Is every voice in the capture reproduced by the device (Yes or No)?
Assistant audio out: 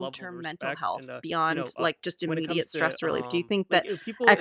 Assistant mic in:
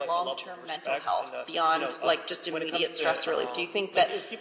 Yes